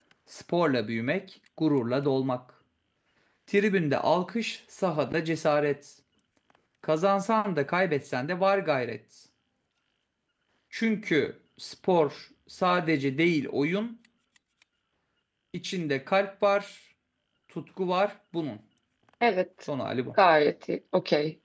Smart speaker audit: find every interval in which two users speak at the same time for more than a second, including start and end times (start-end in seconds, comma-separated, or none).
none